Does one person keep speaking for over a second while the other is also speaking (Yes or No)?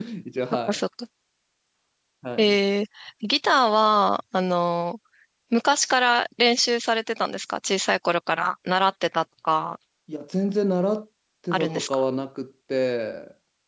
No